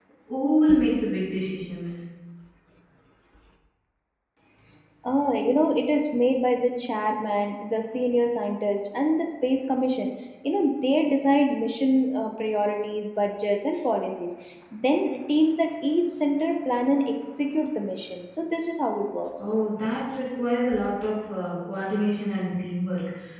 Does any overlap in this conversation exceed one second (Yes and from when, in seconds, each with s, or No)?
No